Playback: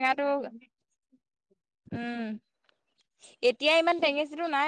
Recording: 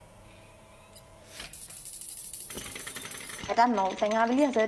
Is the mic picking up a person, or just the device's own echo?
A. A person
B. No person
A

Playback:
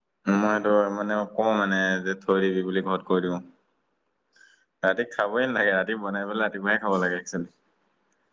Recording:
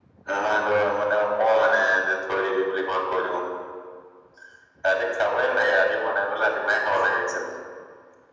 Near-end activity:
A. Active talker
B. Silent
B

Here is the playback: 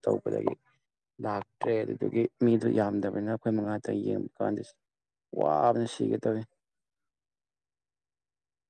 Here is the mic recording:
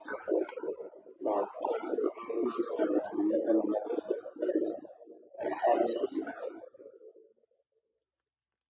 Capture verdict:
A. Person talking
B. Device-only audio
B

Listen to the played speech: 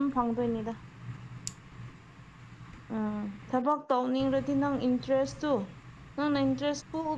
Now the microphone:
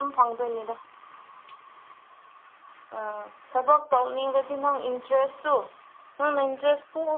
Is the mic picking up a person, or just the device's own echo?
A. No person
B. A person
A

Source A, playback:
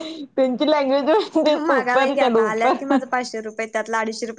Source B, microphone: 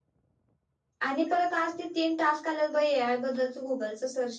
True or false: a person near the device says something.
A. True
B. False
A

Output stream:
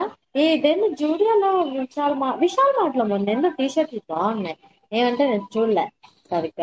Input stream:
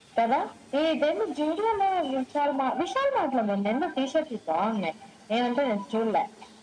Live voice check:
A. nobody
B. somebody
A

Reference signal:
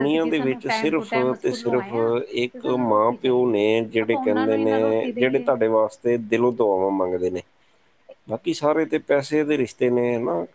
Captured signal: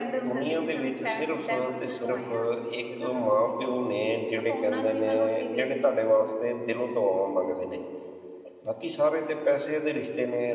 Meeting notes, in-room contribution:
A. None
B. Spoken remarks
A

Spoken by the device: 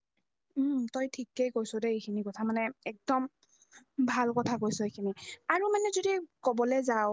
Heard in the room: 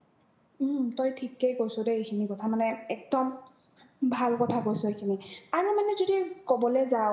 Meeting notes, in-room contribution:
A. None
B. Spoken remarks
A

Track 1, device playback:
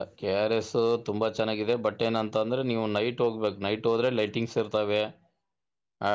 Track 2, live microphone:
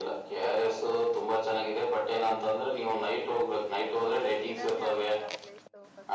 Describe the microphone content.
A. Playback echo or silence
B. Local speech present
B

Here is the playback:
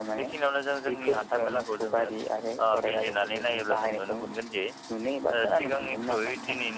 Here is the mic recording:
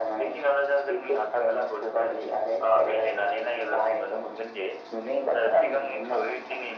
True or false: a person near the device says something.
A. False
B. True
A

